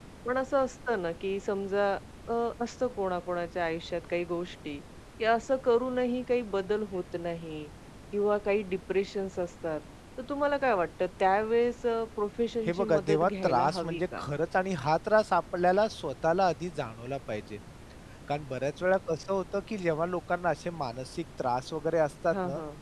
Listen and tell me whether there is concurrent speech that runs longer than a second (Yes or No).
Yes